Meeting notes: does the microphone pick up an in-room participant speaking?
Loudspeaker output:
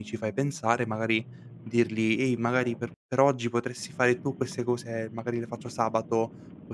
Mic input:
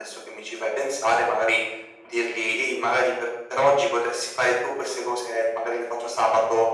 No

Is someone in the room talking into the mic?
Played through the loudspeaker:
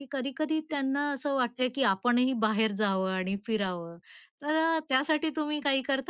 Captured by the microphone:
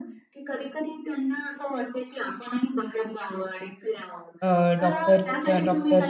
Yes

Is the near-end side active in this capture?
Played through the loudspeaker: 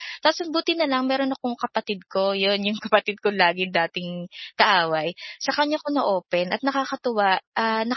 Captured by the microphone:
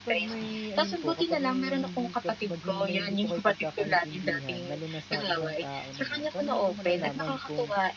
Yes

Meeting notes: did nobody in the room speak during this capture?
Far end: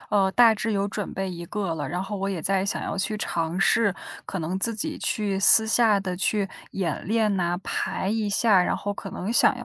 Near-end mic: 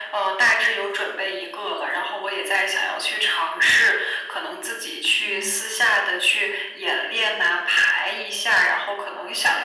No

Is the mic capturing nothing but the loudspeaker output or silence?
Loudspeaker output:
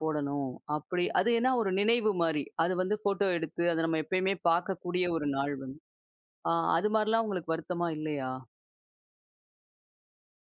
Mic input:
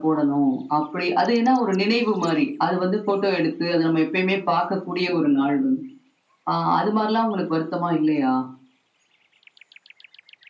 Yes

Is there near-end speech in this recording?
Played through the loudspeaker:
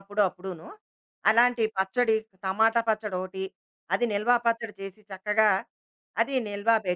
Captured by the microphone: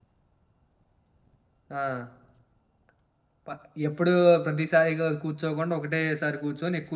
Yes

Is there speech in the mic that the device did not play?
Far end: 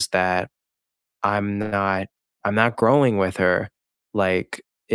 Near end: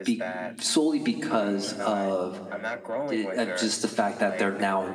Yes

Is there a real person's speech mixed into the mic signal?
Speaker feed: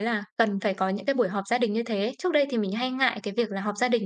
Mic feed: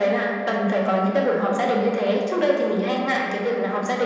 No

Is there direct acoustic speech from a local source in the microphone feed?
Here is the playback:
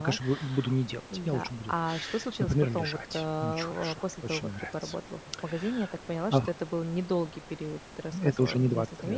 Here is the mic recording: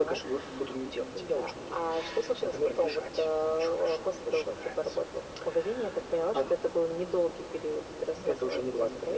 No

